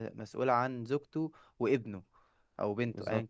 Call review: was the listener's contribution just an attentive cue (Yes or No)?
Yes